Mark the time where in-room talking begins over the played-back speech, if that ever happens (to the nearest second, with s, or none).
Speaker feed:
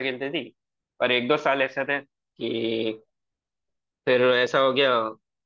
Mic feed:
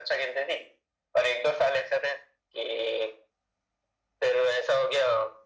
none